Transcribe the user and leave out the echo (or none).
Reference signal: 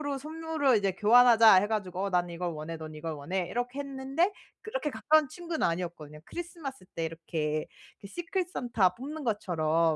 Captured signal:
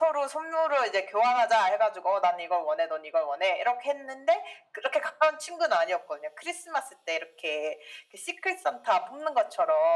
none